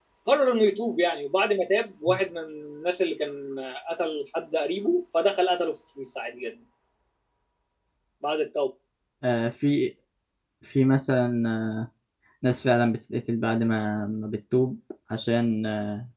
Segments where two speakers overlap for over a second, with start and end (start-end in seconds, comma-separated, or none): none